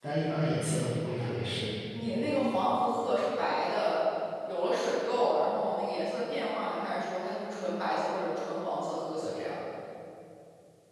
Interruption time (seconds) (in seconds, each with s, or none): none